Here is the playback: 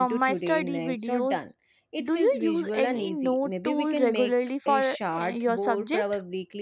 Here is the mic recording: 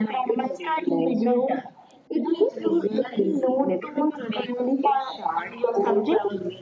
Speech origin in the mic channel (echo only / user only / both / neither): echo only